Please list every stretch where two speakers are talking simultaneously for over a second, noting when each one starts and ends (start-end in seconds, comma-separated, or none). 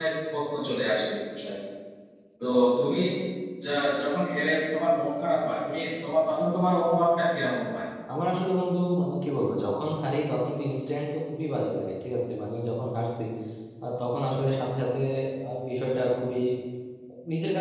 none